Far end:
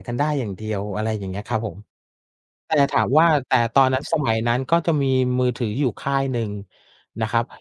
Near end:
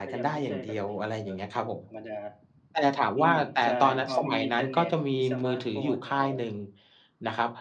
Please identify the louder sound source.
echo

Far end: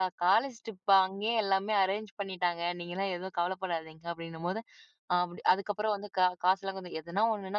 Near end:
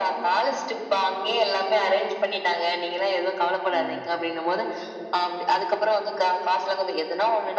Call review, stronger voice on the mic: echo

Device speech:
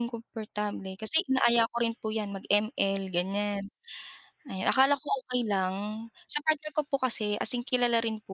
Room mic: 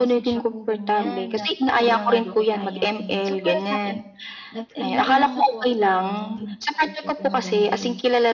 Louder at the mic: echo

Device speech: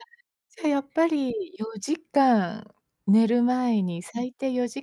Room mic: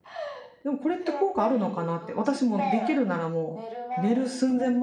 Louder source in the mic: user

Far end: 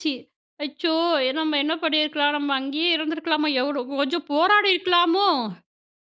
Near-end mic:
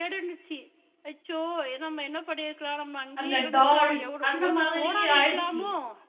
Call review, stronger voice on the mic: user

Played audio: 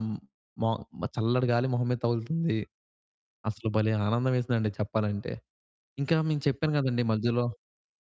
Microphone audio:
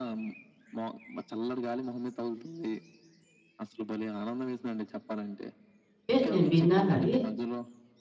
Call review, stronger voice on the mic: user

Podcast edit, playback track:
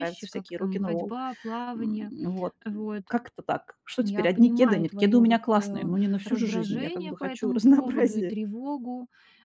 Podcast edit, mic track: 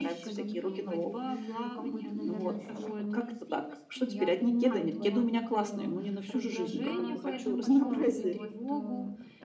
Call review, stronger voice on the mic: echo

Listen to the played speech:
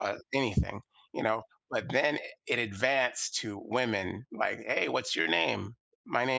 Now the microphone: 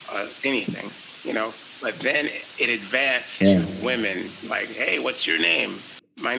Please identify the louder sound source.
user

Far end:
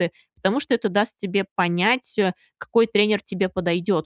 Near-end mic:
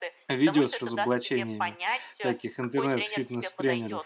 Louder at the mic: user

